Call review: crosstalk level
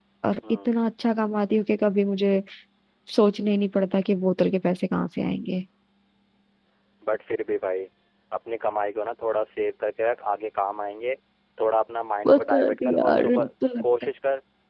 present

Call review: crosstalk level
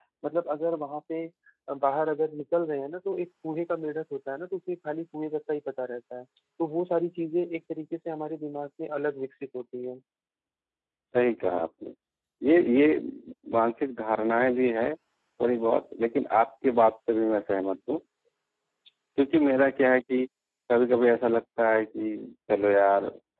none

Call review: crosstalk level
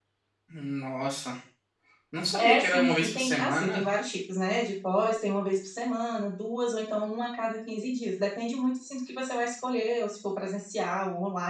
present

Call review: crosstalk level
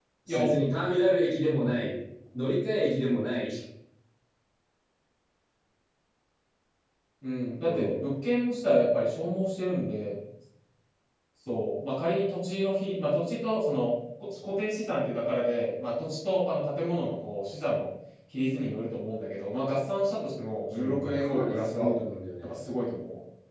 present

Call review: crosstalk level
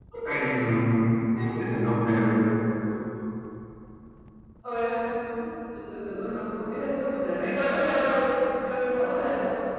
none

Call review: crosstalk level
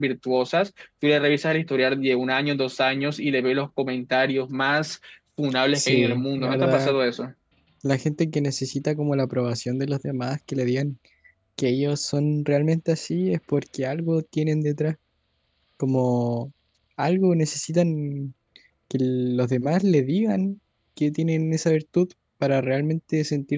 present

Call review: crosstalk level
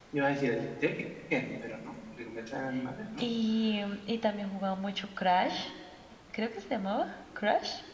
none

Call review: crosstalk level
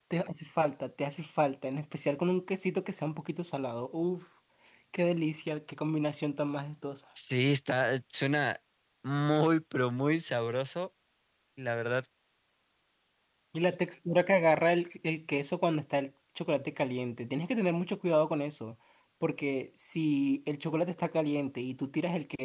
none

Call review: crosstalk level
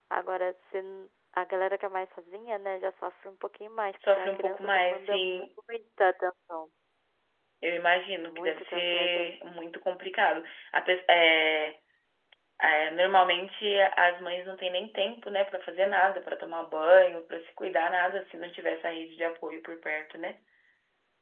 present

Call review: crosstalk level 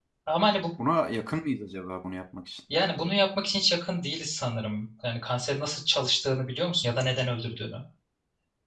none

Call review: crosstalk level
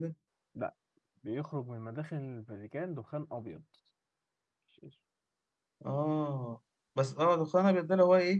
none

